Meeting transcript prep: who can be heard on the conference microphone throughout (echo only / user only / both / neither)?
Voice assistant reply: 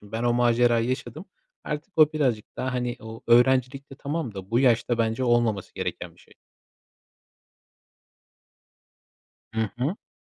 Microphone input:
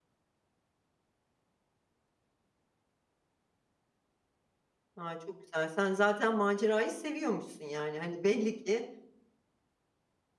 user only